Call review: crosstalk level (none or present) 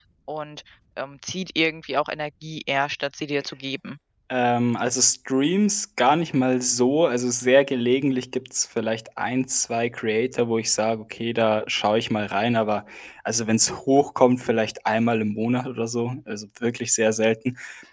none